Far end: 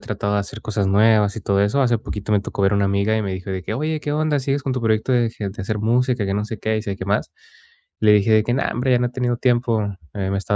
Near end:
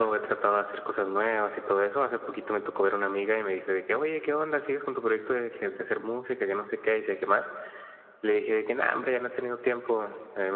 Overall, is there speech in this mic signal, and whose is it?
echo only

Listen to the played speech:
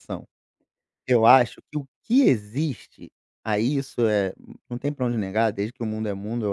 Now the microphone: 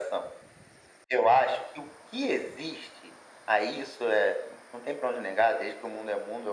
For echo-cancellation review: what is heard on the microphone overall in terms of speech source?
echo only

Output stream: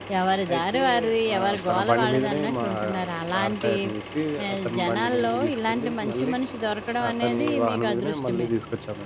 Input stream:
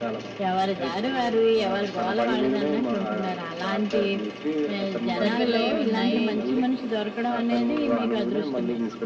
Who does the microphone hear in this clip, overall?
both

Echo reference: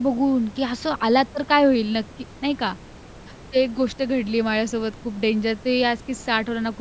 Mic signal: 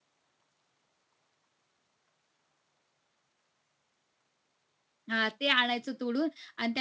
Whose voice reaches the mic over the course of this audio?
user only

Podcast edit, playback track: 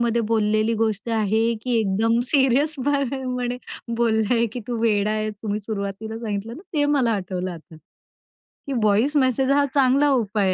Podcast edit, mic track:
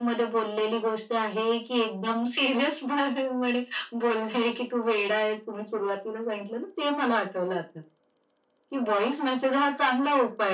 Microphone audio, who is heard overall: echo only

